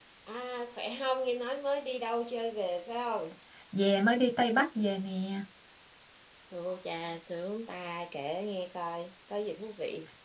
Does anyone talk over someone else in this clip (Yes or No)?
No